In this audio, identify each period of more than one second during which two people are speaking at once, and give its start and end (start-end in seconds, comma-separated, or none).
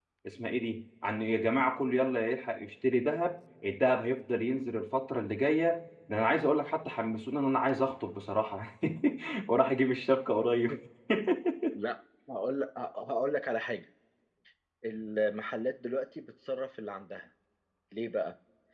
none